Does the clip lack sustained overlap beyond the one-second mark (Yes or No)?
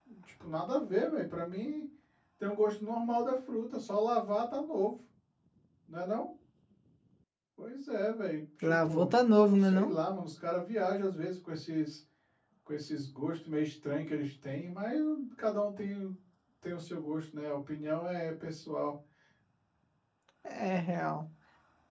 Yes